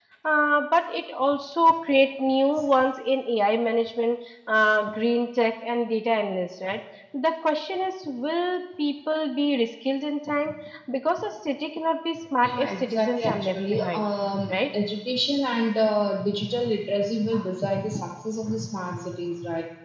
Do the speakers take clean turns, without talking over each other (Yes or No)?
No